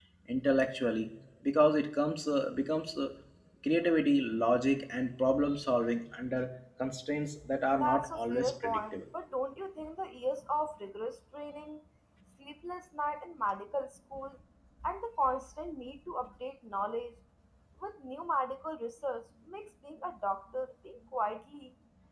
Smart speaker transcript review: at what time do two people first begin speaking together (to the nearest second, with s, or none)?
8 s